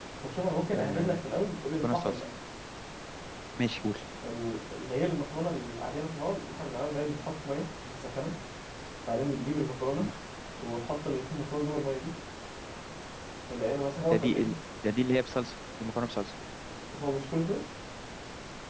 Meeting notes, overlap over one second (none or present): none